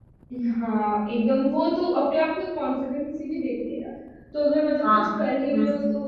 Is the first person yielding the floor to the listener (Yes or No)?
No